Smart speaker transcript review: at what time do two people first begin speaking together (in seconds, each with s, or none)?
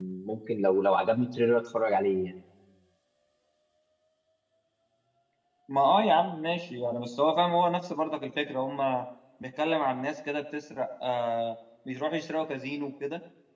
none